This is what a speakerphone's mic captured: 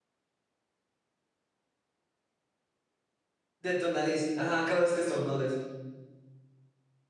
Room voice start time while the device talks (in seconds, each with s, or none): 3.6 s